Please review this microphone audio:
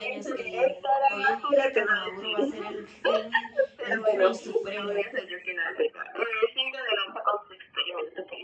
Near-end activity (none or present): present